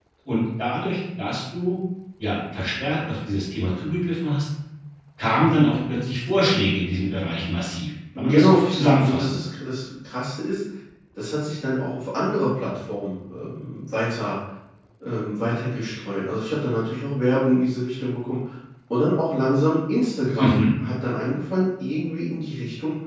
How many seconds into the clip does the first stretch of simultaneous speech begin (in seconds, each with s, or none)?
8.2 s